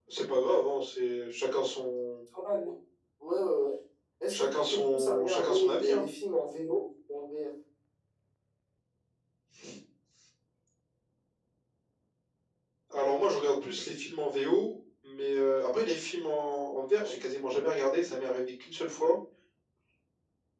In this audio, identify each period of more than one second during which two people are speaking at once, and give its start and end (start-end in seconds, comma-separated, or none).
4.3-6.0